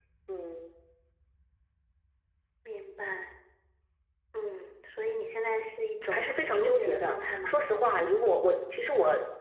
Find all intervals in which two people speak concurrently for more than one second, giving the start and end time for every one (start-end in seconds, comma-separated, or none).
6.1-7.5